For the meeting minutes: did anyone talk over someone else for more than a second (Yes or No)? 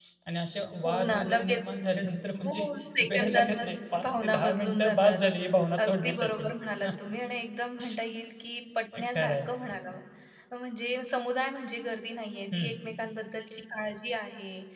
Yes